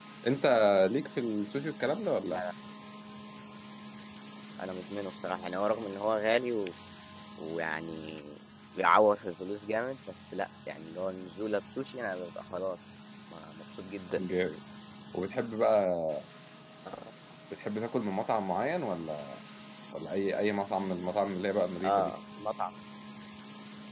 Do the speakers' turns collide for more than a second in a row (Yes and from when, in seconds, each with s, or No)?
No